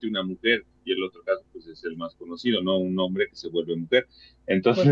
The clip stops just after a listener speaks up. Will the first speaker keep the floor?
No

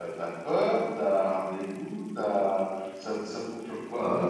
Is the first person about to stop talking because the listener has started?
Yes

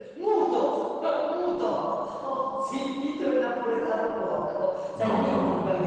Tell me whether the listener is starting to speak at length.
No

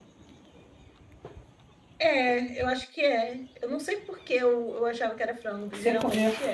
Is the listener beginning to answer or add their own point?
Yes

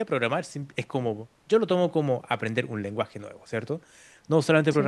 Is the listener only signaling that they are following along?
Yes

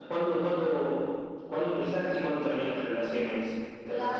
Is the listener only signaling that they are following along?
No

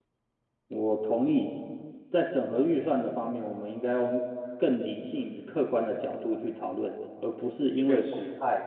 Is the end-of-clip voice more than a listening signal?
No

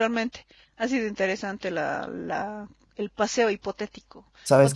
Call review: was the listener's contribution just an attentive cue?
Yes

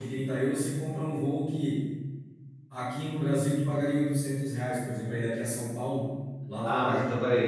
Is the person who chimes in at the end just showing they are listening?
No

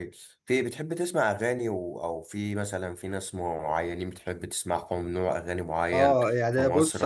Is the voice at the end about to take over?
Yes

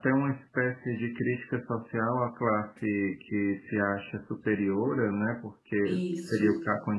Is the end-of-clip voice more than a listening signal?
No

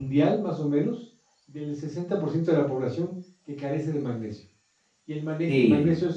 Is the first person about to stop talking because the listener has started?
No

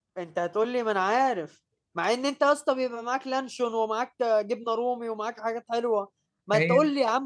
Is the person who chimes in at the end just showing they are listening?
Yes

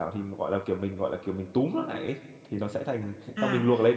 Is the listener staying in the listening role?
No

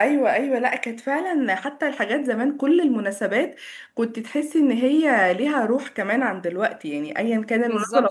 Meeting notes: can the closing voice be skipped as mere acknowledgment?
No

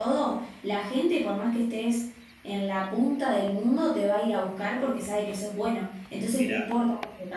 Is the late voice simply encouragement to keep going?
Yes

